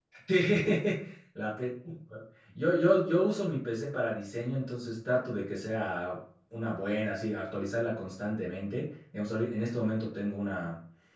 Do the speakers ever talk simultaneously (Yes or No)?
No